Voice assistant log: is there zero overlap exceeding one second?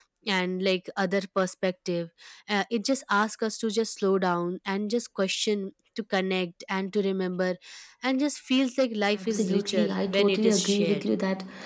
No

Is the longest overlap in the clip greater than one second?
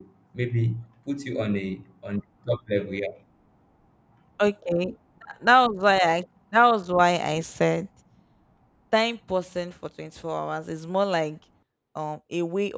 No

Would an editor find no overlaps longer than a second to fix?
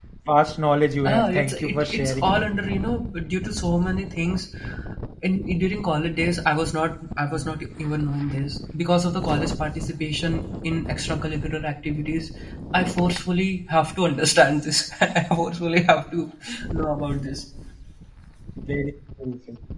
No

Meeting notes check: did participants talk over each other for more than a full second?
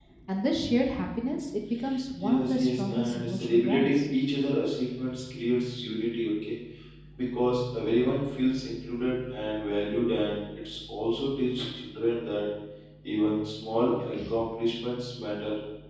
Yes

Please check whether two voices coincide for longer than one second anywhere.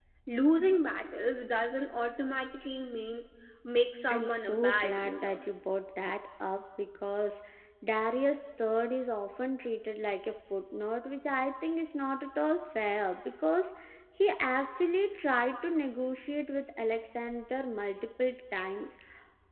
Yes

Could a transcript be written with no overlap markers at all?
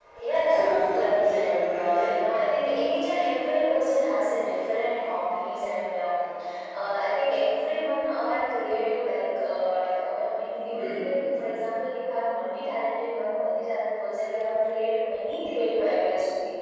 No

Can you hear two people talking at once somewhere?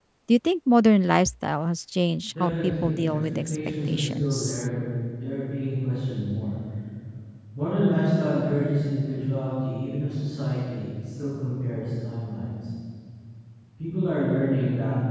Yes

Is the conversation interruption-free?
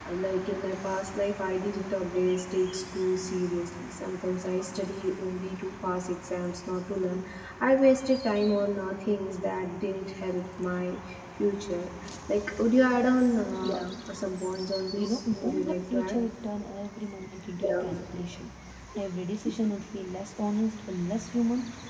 No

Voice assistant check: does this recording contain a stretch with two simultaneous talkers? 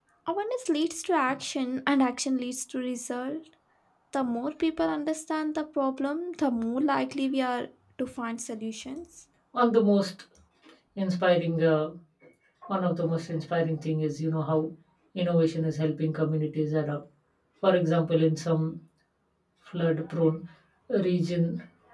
No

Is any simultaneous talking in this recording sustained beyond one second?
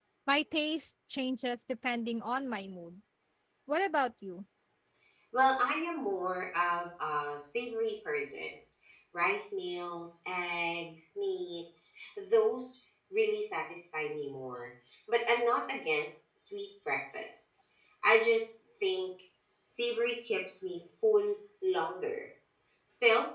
No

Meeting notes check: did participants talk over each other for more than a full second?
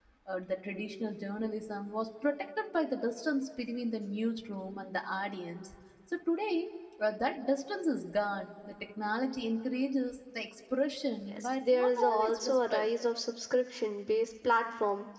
Yes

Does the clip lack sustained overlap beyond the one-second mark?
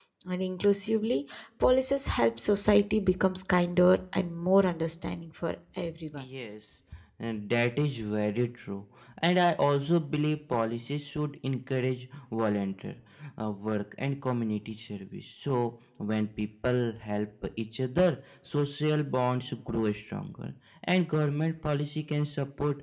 Yes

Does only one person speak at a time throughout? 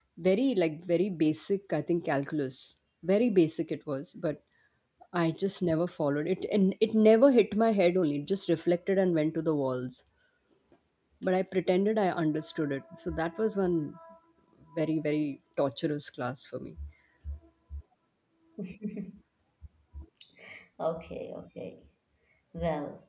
Yes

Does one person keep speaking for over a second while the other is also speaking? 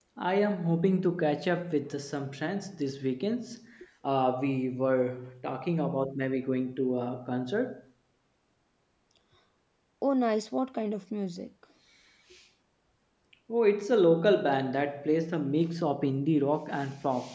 No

